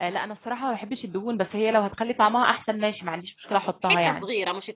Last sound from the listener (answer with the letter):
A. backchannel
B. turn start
B